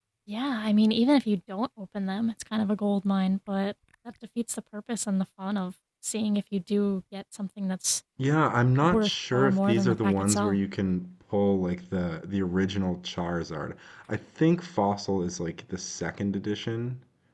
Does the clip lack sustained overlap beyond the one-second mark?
No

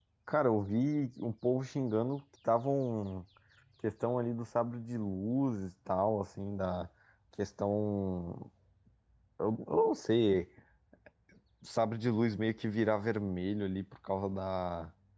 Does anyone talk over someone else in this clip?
No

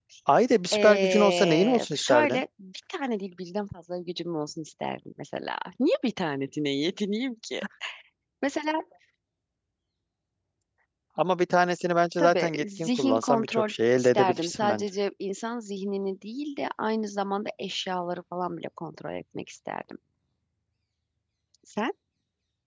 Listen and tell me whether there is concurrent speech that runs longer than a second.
Yes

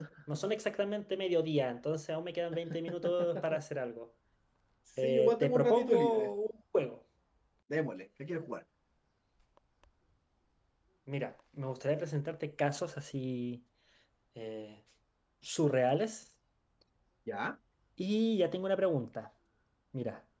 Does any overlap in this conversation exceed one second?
Yes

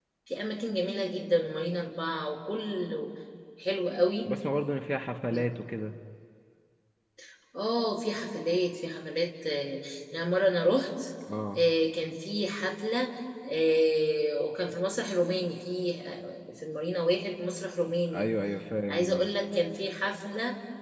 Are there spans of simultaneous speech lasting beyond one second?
No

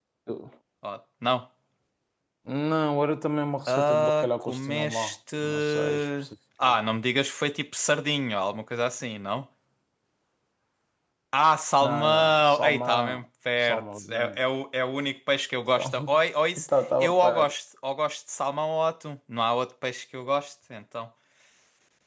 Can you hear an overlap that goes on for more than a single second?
Yes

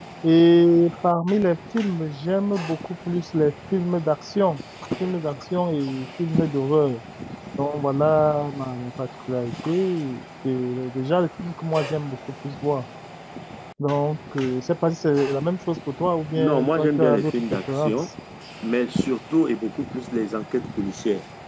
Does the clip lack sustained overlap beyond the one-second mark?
No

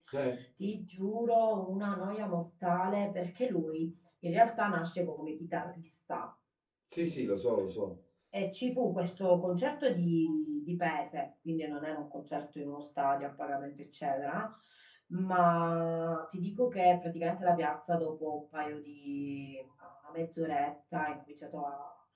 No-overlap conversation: Yes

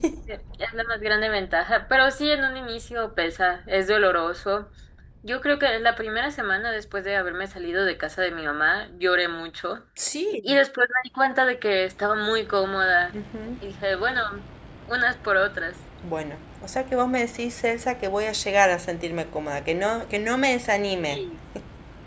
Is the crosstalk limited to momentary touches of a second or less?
Yes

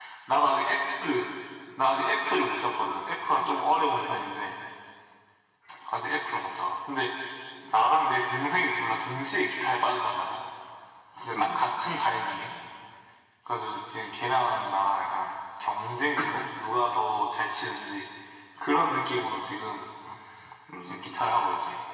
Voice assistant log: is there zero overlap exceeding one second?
Yes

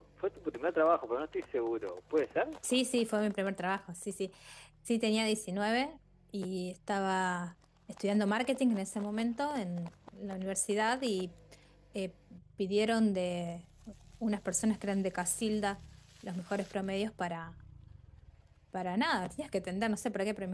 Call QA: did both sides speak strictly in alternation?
Yes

